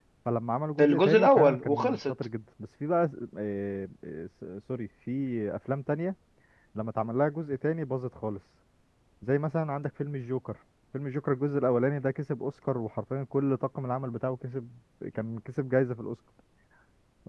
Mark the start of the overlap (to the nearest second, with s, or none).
1 s